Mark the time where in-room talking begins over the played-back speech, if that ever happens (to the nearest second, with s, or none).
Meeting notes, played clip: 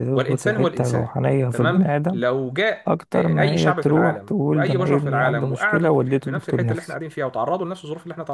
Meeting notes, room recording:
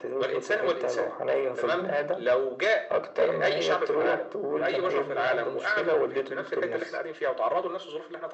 none